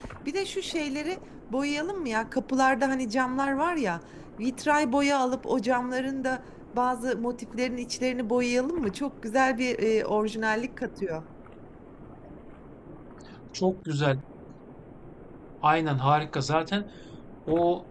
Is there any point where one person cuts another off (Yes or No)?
No